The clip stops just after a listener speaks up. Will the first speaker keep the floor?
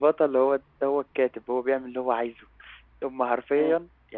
Yes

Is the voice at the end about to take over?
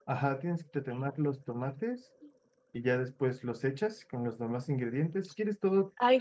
Yes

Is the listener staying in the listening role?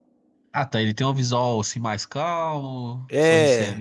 No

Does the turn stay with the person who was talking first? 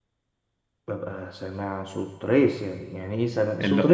No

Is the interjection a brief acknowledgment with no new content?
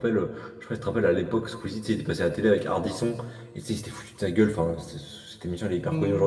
Yes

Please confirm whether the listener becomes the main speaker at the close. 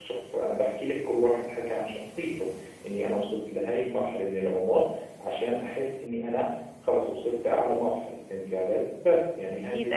Yes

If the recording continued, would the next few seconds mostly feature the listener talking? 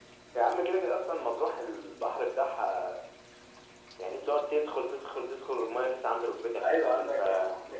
Yes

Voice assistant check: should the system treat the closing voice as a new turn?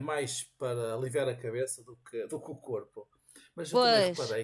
No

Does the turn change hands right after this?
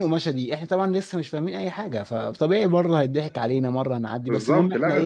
No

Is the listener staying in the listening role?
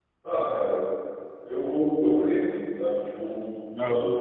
Yes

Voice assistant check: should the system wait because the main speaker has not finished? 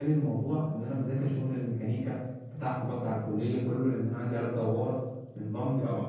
Yes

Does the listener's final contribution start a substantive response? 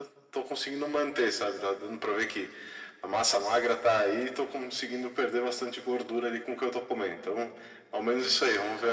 No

